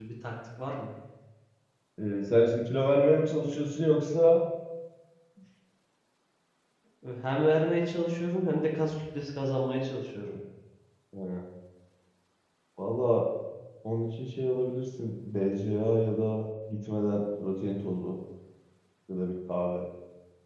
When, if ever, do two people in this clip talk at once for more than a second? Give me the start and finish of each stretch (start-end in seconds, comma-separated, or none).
none